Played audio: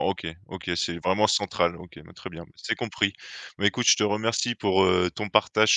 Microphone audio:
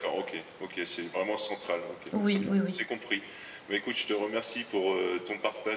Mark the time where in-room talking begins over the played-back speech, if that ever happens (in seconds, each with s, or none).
2.1 s